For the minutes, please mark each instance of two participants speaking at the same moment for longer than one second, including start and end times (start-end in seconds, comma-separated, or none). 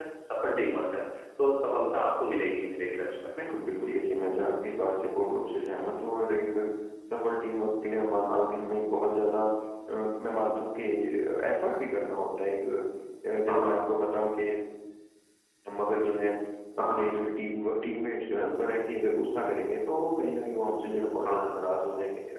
none